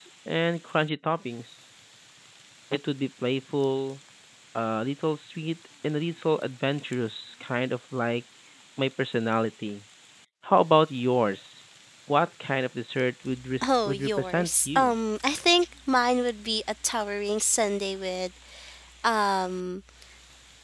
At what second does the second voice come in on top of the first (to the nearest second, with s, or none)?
14 s